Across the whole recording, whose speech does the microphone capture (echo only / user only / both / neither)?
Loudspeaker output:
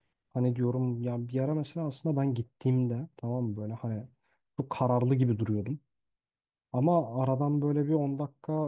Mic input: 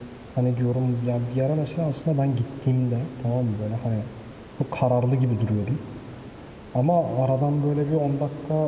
echo only